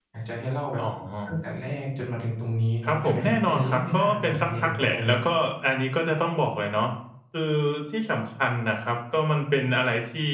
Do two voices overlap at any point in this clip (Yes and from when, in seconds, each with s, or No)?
Yes, from 2.8 s